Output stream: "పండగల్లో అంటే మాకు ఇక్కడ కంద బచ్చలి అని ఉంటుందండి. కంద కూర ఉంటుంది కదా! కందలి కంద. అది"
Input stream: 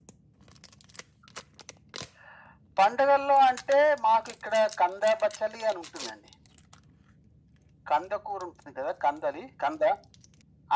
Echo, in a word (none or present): present